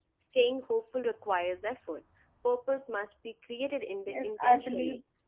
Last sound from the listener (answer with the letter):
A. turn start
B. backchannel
A